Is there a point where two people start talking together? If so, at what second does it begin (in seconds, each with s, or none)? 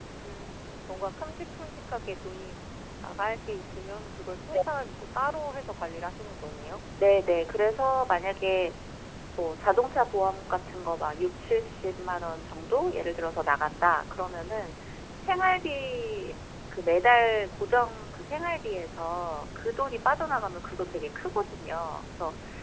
none